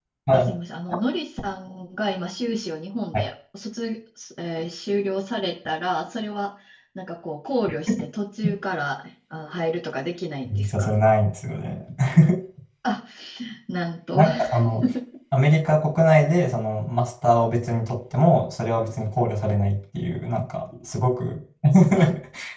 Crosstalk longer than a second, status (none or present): none